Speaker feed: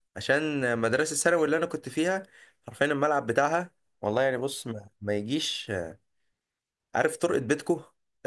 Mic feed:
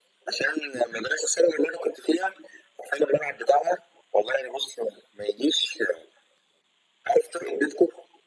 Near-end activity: none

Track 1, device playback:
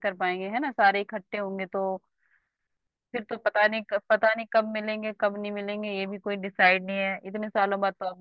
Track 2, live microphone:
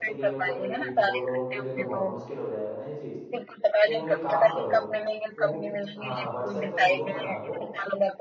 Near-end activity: present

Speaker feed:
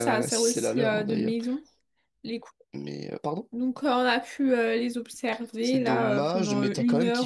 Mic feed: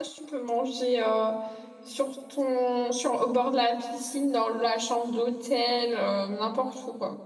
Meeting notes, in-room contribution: present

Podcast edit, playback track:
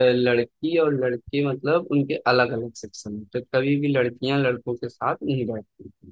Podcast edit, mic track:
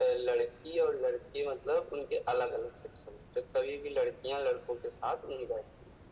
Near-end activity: none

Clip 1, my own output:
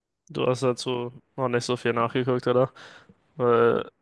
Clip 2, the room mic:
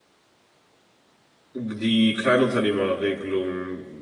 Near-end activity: present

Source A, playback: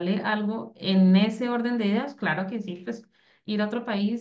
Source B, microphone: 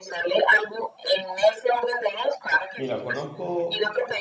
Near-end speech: present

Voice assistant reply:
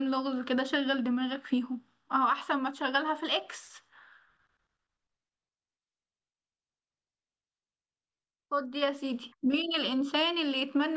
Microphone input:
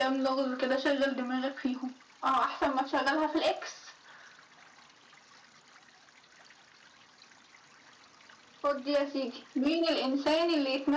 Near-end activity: none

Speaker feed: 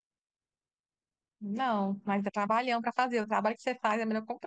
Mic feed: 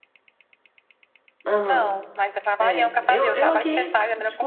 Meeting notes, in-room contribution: present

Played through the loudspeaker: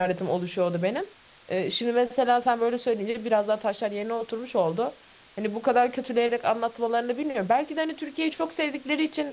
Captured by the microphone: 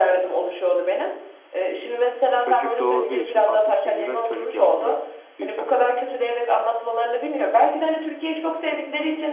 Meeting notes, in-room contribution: present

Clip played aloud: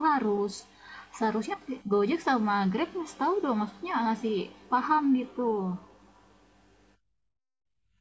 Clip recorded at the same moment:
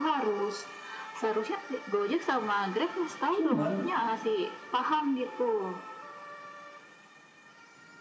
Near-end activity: present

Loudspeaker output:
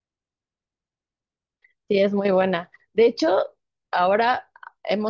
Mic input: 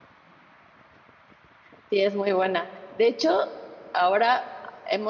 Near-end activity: none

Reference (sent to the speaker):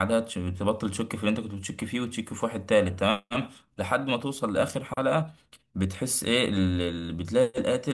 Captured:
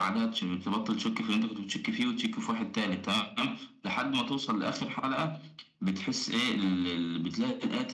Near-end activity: none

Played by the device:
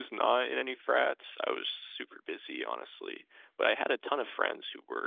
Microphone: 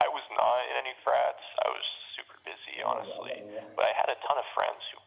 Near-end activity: present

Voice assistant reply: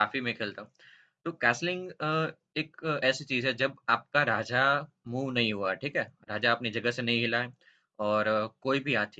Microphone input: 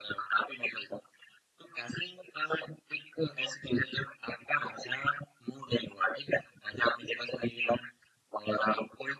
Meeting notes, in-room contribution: none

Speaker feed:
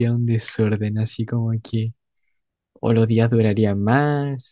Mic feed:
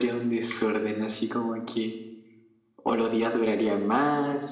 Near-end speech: none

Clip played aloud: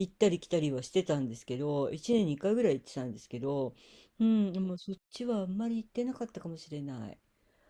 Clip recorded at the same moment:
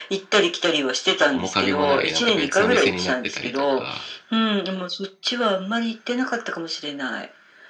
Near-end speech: present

